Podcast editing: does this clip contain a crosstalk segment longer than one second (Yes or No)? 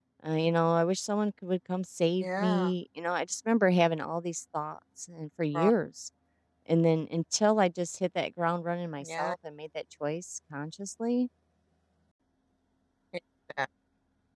No